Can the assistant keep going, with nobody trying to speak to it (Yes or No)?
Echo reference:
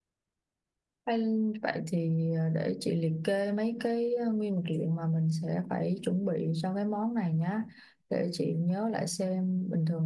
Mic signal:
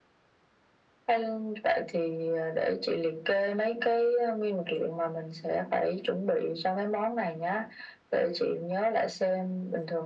Yes